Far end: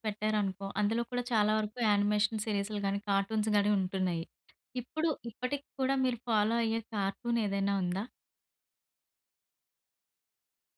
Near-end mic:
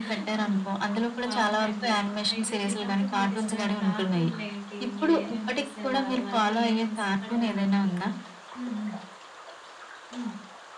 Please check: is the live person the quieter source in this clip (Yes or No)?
Yes